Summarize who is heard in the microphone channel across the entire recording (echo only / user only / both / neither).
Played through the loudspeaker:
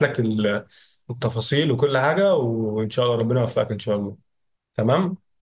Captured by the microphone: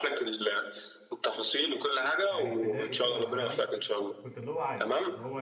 both